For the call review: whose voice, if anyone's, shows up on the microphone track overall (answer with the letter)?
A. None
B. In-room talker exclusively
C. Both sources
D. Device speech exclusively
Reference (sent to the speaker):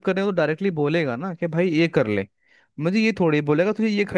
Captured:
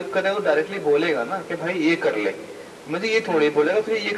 D